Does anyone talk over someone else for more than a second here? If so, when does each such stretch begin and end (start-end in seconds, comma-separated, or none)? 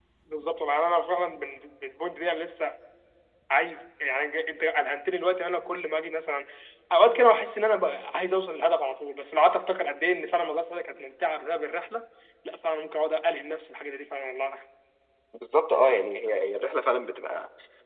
none